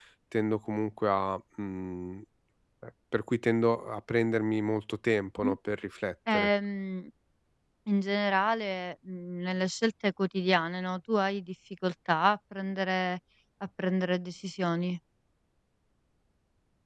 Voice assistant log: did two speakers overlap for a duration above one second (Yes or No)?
No